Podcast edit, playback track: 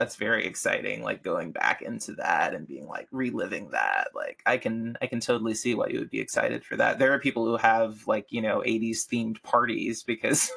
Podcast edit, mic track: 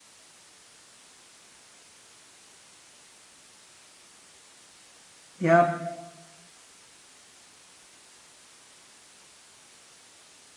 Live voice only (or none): Yep.